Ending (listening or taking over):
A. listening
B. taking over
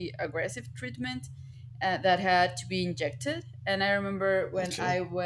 A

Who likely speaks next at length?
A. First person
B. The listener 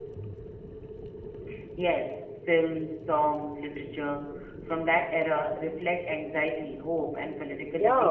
B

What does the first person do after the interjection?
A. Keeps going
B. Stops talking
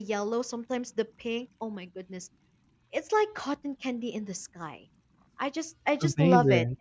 A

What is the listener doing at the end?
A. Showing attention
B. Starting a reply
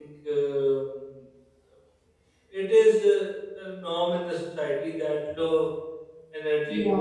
A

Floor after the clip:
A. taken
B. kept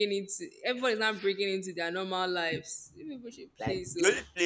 A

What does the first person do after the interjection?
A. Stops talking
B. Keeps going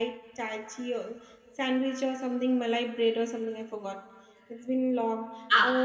A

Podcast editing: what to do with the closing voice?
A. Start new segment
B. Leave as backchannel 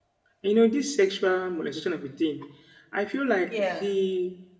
B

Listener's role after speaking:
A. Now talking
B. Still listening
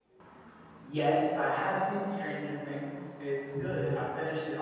B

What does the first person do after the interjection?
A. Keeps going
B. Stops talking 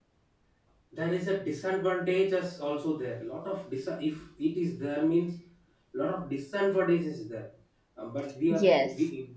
A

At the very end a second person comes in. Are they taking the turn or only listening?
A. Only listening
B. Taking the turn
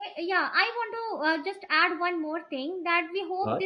A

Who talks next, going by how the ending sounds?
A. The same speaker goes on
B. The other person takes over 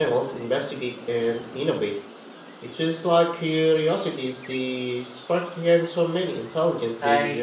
B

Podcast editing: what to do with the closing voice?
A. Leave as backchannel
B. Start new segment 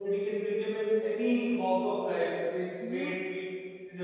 A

